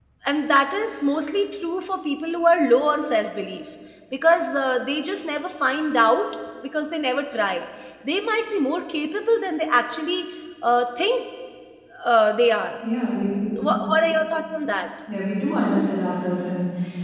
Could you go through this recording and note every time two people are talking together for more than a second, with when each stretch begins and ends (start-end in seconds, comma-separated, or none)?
none